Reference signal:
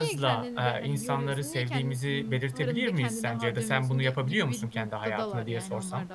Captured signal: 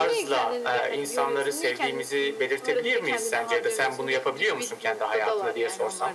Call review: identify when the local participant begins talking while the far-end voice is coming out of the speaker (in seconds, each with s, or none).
none